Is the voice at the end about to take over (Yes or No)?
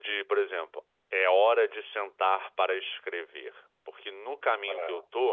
No